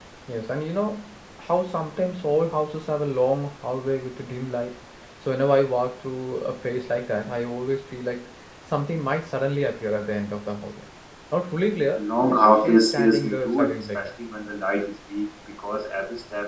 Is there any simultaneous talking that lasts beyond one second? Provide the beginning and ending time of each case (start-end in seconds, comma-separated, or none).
12.0-14.0